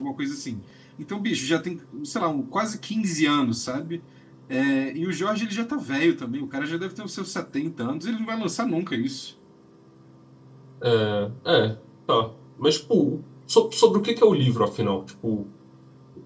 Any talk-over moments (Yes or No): No